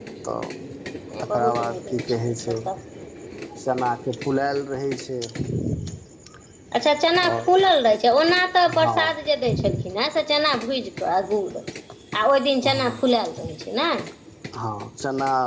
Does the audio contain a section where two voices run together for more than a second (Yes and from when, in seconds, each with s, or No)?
Yes, from 1.2 s